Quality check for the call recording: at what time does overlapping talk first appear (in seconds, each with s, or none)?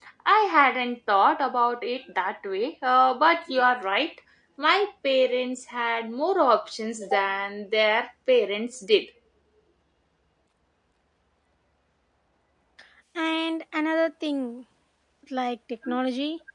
none